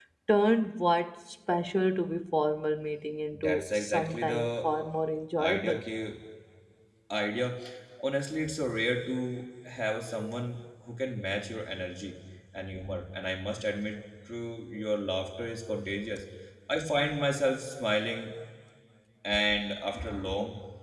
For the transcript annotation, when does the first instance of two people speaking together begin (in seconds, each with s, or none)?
3.5 s